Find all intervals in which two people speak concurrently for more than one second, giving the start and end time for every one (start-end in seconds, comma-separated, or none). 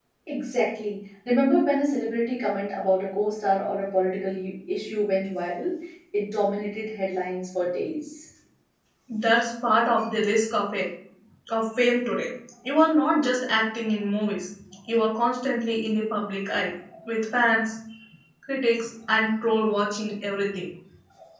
none